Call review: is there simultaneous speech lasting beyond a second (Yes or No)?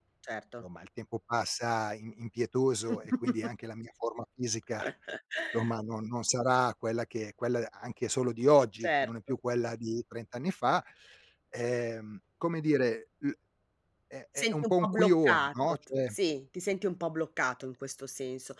Yes